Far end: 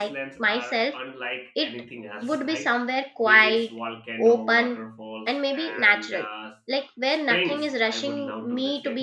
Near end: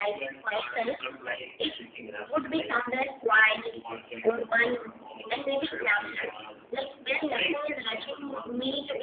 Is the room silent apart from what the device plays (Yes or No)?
Yes